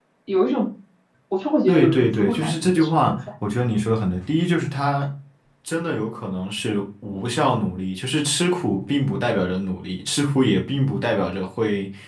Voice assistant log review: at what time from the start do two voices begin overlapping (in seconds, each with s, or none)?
1.7 s